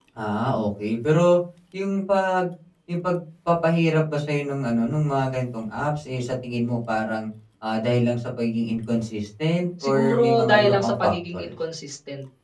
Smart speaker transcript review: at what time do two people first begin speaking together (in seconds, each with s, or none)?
9.8 s